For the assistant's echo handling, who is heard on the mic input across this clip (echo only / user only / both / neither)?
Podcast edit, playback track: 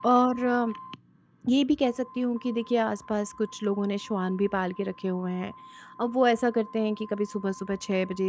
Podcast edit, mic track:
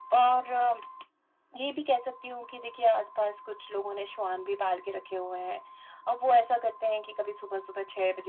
echo only